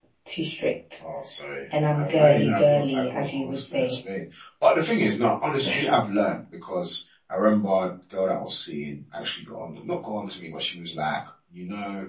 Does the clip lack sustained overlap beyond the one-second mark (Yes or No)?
No